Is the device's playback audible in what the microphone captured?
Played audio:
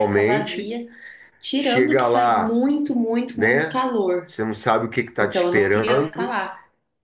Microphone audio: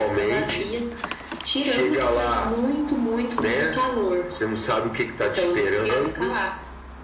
Yes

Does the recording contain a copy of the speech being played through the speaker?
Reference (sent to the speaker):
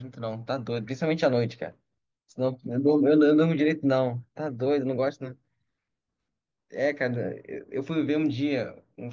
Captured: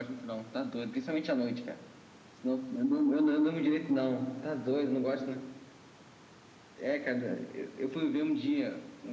Yes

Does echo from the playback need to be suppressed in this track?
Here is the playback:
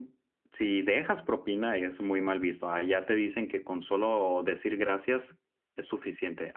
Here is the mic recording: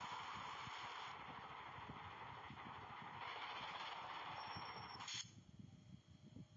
No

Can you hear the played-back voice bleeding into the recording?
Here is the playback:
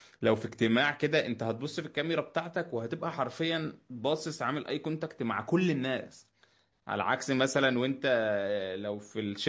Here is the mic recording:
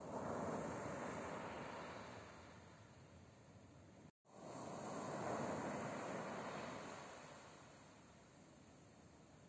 No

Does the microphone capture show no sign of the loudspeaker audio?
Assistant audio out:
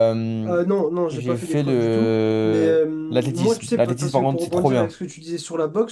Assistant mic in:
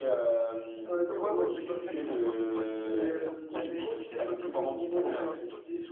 No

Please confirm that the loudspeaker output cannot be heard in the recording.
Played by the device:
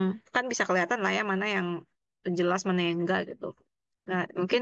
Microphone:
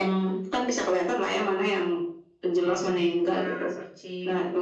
No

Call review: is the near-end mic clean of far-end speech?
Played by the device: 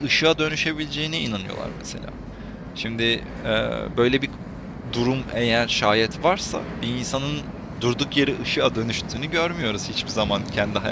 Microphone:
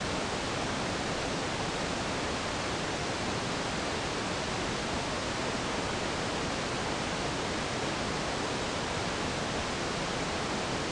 Yes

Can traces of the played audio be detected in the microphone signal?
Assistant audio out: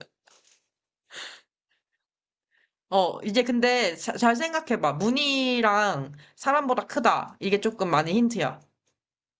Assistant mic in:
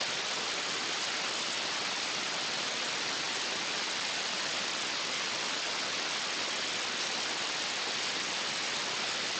No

